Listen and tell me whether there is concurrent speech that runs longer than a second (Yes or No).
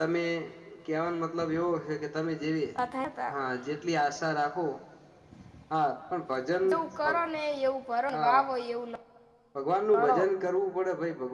No